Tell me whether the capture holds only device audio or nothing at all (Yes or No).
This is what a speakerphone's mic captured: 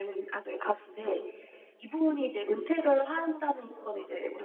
Yes